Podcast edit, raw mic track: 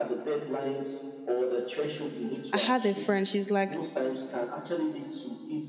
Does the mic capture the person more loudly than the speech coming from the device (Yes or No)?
Yes